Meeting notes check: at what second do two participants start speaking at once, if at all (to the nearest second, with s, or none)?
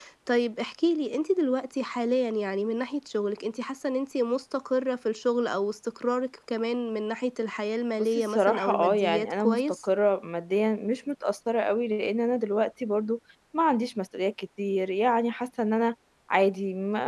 8 s